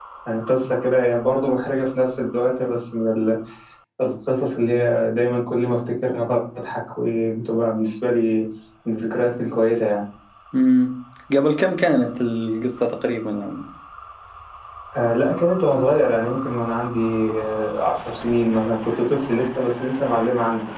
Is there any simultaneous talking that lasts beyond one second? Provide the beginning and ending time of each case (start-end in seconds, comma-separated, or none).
none